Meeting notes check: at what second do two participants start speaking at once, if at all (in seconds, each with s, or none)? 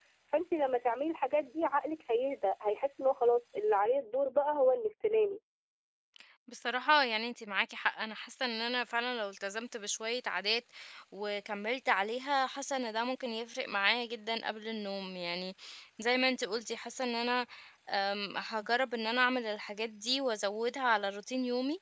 none